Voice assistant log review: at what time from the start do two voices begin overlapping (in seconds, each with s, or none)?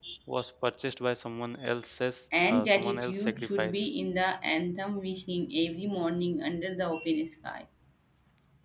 2.5 s